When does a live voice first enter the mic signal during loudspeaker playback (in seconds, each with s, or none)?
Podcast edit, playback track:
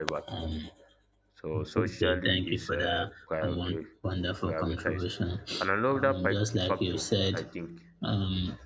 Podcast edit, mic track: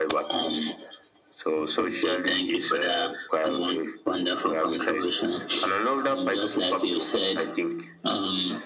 none